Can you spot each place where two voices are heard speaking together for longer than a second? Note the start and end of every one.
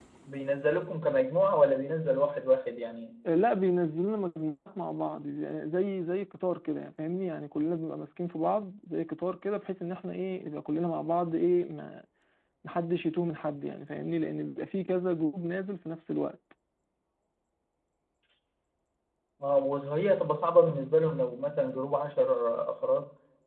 none

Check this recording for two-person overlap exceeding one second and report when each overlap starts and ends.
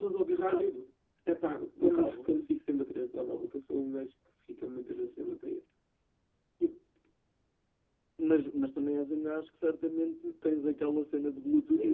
none

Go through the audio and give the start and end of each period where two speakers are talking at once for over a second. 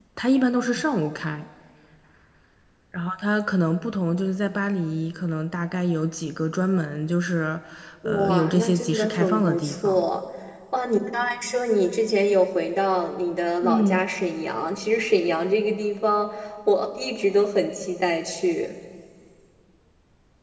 8.0-10.0

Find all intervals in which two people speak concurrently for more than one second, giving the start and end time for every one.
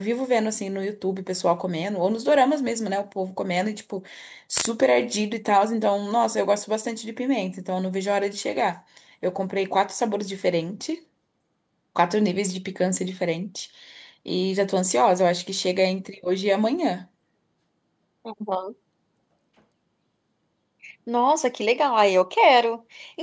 none

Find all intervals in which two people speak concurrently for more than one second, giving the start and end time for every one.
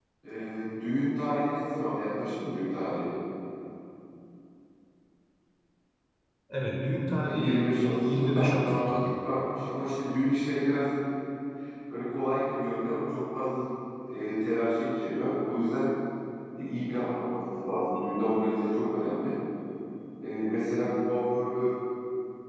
7.2-9.1

